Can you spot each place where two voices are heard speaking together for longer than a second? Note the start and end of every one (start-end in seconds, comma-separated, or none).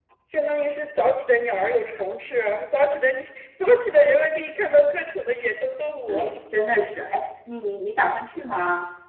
none